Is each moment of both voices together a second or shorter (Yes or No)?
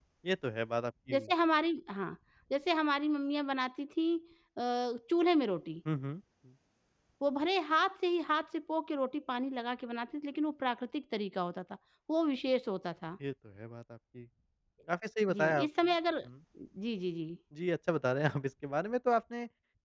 Yes